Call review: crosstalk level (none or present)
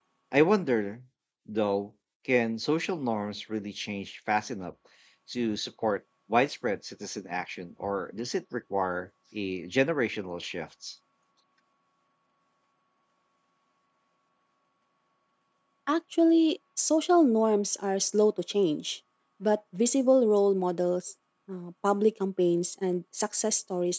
none